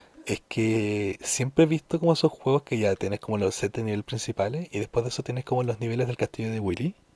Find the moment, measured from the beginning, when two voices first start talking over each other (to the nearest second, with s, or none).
none